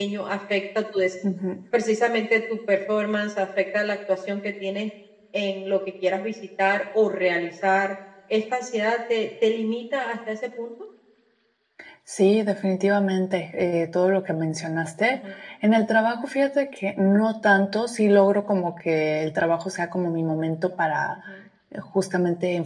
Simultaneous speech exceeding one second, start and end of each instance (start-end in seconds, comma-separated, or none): none